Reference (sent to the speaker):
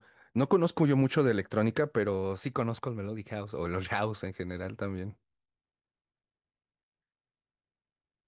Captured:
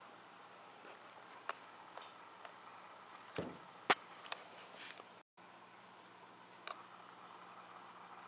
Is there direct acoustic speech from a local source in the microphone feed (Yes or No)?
No